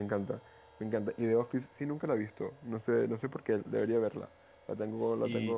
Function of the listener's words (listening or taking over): taking over